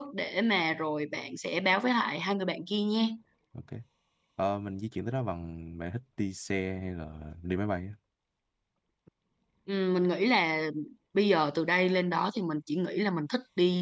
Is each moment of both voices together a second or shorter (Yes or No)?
Yes